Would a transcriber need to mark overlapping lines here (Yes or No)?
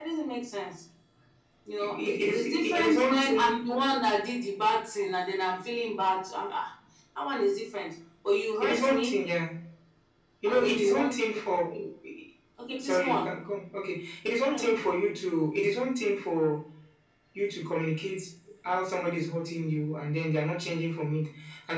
Yes